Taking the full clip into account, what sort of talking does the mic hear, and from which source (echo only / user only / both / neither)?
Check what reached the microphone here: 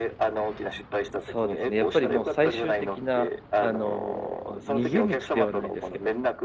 both